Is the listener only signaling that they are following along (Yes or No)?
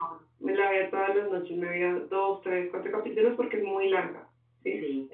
Yes